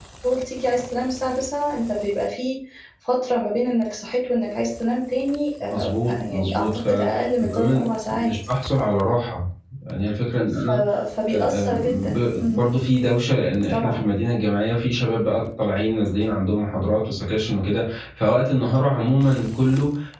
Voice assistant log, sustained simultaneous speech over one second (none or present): present